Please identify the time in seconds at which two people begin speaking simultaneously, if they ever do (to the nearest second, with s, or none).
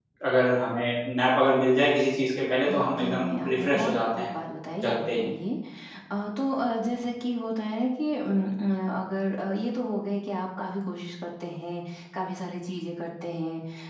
3 s